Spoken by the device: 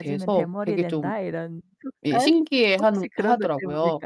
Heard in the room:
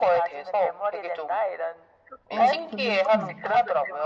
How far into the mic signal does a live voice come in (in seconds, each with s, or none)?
2.2 s